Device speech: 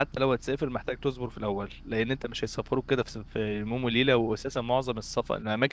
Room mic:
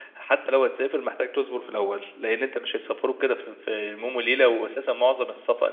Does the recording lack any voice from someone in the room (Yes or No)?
Yes